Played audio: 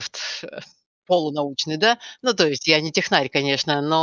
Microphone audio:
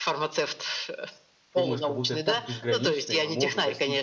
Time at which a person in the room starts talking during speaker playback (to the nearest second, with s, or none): 2 s